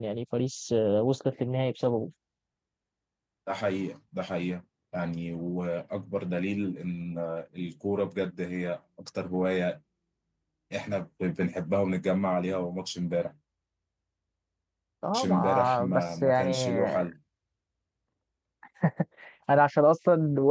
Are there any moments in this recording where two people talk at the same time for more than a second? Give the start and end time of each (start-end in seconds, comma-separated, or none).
15.1-17.0